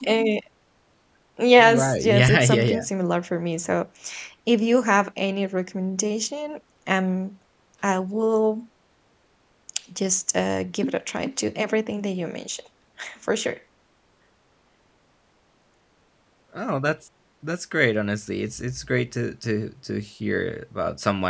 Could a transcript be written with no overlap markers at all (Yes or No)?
No